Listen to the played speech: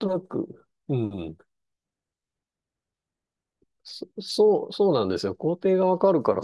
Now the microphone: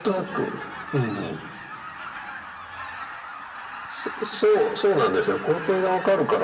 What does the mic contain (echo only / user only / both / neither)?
echo only